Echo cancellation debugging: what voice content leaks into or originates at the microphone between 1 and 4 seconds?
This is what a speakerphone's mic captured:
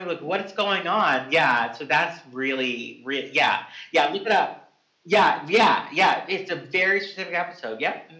echo only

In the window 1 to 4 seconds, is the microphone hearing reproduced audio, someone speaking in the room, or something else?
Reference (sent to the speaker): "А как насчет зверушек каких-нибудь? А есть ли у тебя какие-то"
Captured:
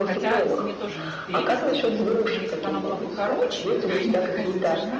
both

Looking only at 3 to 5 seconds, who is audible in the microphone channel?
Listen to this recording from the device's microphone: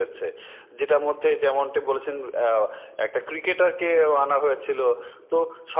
echo only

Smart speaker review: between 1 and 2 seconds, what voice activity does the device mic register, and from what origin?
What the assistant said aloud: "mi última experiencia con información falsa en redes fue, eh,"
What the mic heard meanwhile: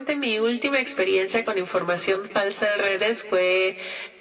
echo only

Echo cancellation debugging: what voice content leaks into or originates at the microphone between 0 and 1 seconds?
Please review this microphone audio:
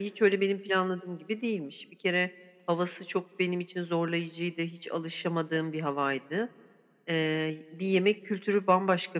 echo only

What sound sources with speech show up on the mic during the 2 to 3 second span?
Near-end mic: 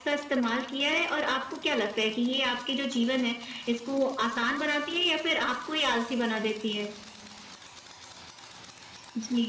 echo only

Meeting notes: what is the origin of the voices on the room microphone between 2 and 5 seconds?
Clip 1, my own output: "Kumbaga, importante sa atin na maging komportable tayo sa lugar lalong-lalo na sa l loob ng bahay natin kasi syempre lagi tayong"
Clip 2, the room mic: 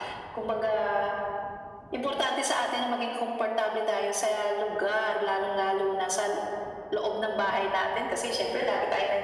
echo only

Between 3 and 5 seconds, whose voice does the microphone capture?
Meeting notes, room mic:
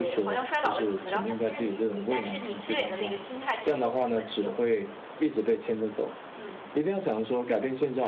both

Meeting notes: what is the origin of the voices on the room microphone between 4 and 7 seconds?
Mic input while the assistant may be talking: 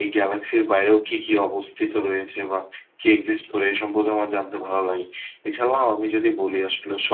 user only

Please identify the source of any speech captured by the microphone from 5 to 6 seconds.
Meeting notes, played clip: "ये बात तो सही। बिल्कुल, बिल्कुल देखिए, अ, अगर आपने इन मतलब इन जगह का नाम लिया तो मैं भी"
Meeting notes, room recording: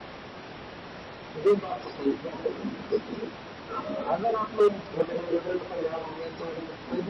echo only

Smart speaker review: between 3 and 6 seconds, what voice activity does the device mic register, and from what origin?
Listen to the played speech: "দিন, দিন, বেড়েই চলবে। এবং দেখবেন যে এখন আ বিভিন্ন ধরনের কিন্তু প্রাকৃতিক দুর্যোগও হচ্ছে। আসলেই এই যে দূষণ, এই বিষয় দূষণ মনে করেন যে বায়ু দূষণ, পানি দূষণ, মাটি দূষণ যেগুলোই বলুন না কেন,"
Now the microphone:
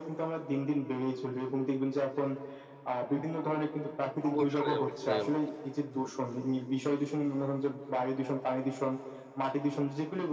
both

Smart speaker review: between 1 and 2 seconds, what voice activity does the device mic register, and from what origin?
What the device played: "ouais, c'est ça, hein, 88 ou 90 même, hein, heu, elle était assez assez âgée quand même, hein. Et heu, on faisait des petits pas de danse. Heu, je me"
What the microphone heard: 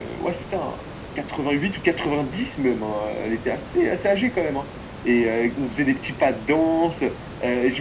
echo only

